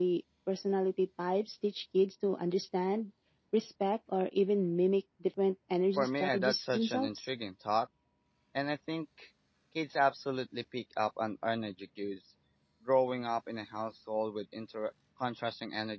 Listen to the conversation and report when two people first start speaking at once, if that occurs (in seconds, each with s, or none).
6.0 s